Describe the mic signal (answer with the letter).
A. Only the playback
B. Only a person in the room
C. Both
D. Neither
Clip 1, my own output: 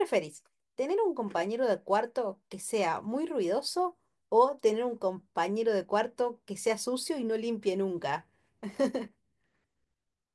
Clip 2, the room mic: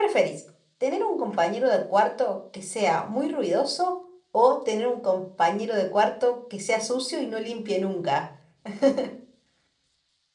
A